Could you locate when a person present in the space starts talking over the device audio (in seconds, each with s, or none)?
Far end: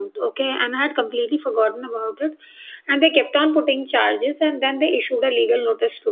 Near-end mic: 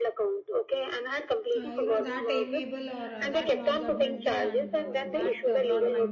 1.6 s